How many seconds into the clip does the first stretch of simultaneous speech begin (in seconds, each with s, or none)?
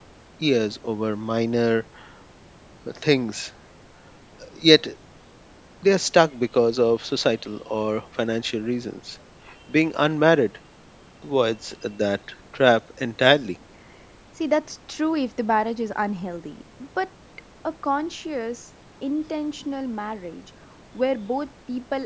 none